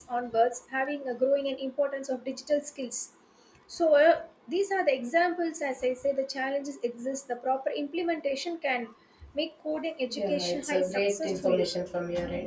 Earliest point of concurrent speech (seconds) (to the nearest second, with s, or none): 10 s